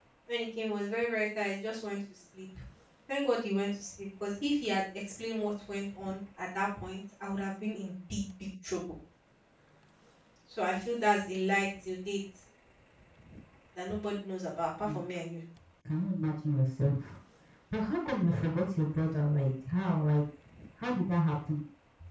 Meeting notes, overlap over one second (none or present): none